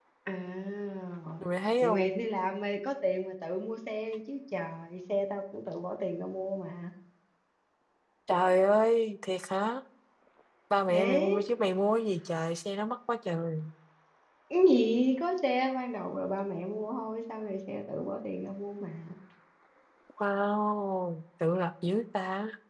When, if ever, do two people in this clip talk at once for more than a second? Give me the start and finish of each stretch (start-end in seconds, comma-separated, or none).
none